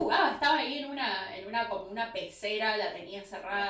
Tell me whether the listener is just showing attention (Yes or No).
Yes